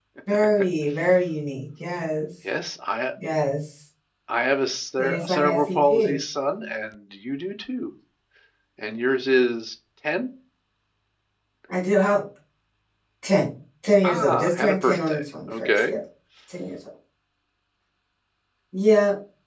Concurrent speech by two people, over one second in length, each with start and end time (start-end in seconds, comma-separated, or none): 5.0-6.2, 14.0-16.0